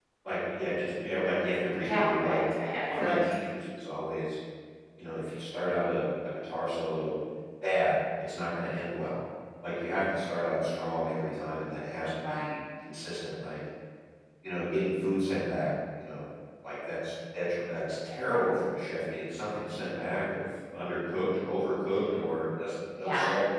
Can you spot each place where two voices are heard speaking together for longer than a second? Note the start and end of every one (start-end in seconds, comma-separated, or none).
1.8-3.2